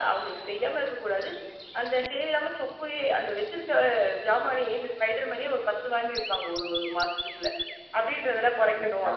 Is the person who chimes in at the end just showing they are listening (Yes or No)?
Yes